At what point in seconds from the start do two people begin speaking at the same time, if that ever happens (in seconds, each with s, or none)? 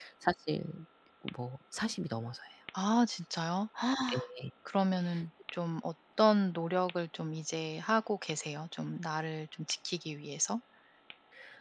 none